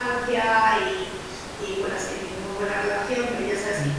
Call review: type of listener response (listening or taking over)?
listening